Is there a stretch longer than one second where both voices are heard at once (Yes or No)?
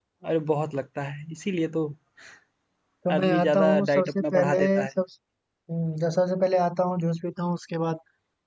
Yes